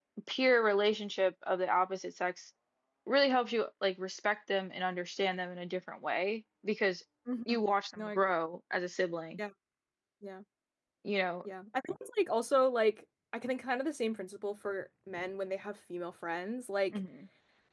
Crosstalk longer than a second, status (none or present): none